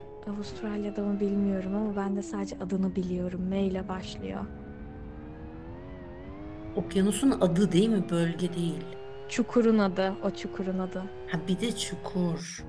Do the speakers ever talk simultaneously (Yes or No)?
No